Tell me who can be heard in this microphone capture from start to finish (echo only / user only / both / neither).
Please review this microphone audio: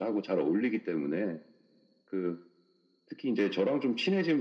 echo only